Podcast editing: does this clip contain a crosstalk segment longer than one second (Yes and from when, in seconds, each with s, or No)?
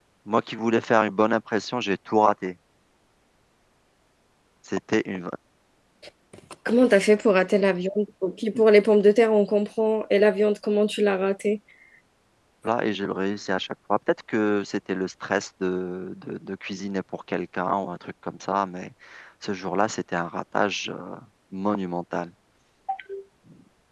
No